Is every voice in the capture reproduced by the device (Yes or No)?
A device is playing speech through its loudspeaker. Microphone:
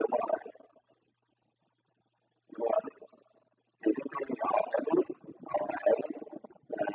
Yes